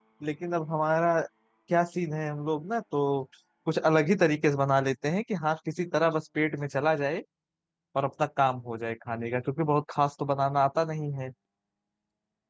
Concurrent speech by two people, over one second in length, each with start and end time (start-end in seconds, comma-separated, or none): none